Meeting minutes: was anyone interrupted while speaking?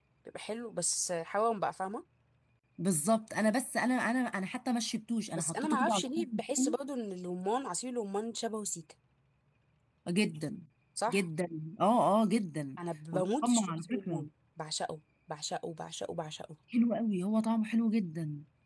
Yes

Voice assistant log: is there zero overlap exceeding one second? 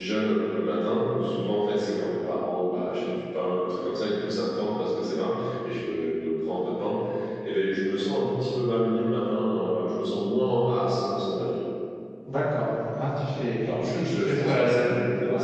No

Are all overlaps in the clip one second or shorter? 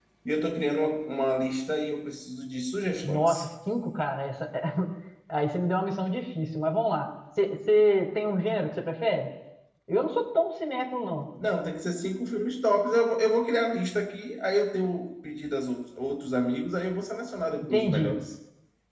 Yes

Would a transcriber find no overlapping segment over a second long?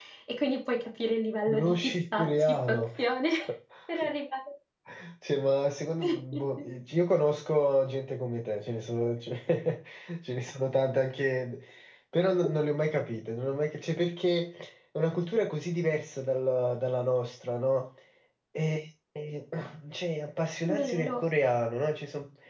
No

